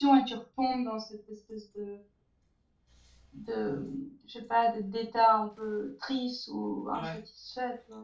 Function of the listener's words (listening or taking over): listening